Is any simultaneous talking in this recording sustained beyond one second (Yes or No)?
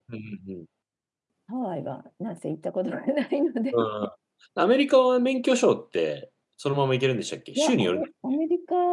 No